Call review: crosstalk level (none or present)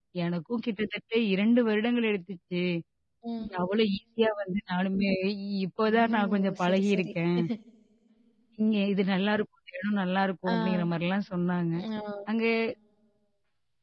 present